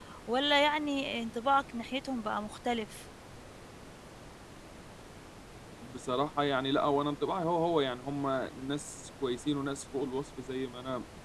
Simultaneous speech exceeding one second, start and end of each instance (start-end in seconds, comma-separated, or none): none